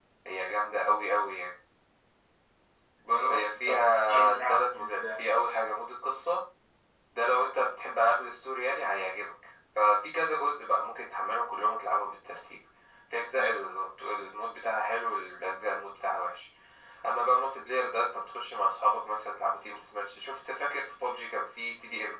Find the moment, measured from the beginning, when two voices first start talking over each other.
3.1 s

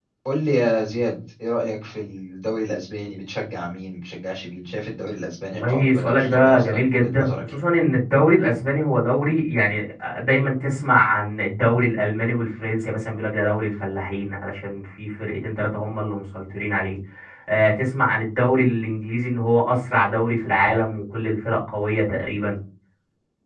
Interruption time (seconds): 5.5 s

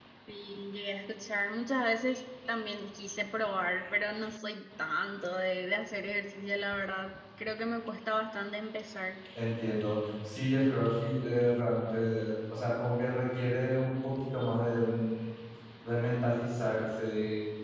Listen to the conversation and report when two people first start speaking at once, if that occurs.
none

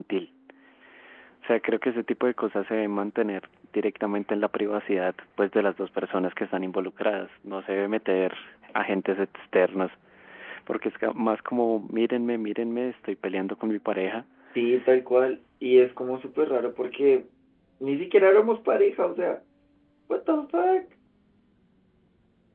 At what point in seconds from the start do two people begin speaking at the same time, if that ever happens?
none

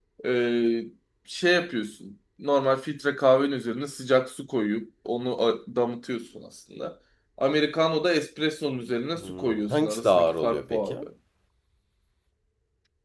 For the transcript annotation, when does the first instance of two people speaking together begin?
9.2 s

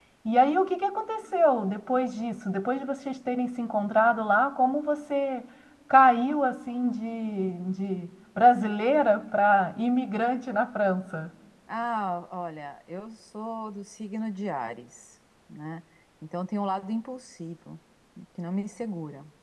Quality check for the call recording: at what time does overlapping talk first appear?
none

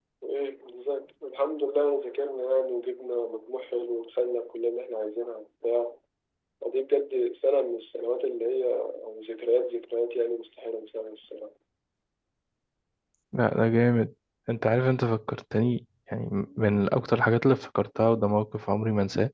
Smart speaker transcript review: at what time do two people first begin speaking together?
none

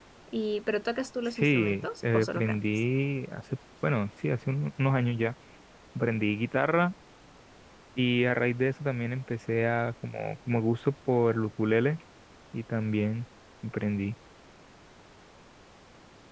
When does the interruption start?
1.4 s

